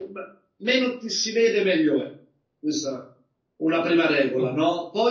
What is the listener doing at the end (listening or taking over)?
listening